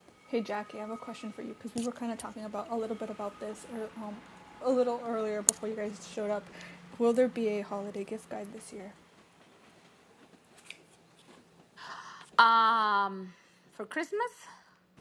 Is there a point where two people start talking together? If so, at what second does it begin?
none

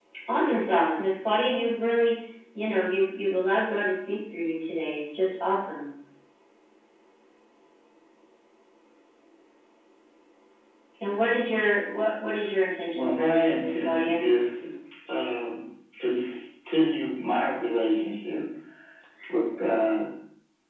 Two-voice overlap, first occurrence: 12.9 s

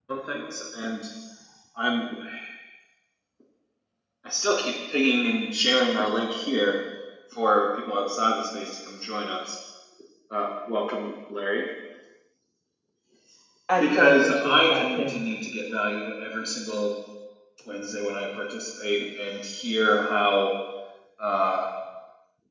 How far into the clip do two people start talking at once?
13.8 s

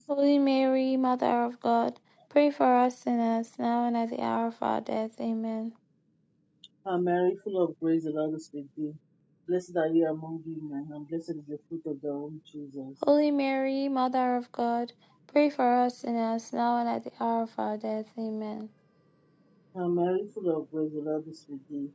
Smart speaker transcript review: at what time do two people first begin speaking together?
none

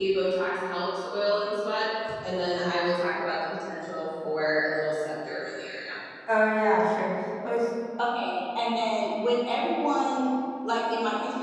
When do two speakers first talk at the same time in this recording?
none

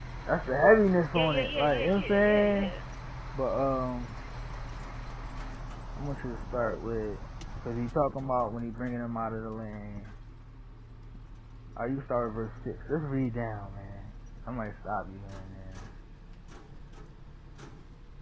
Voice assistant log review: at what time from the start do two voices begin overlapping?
1.1 s

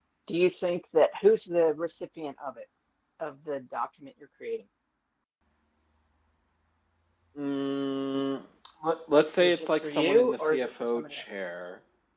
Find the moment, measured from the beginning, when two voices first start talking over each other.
9.4 s

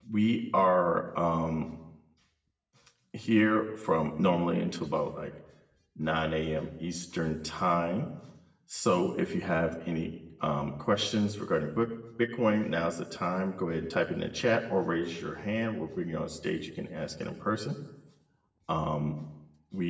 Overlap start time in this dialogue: none

